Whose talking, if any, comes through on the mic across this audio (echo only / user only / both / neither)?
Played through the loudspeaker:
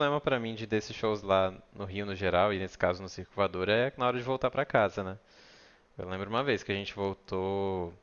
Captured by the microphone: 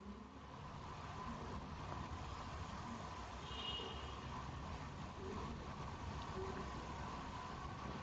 neither